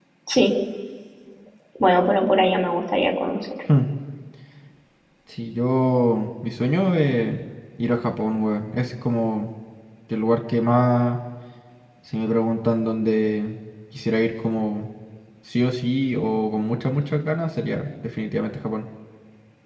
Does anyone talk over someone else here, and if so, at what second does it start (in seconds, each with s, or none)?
none